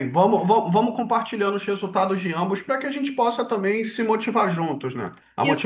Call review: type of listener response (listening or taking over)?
taking over